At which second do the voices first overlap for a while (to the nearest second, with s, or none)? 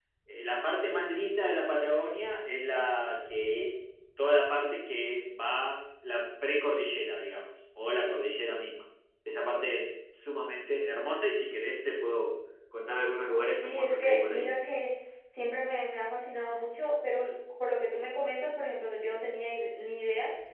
13 s